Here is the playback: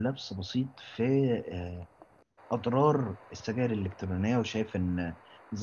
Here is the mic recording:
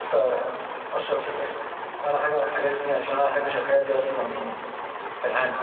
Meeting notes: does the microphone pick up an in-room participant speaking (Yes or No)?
Yes